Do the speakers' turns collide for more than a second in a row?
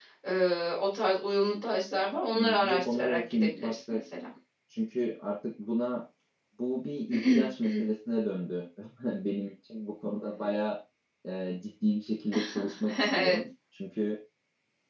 Yes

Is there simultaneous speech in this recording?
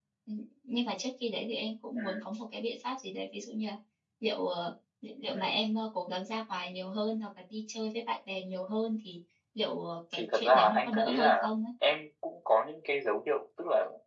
Yes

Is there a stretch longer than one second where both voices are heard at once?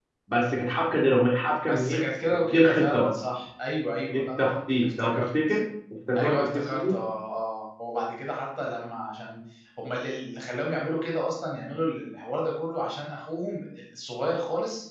Yes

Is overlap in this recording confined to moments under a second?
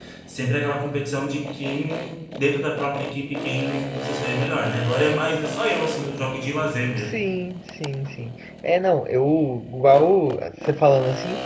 Yes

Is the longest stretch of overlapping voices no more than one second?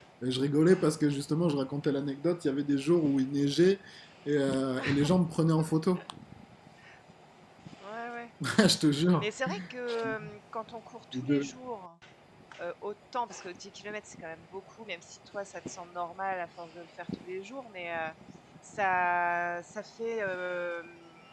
Yes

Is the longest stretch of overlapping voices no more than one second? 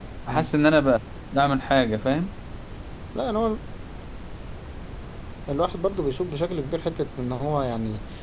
Yes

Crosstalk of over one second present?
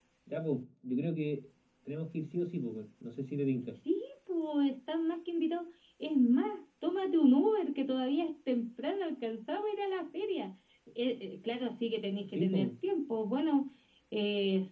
No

